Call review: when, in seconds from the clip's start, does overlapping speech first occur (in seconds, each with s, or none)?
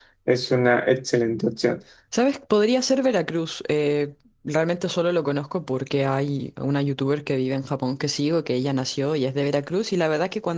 none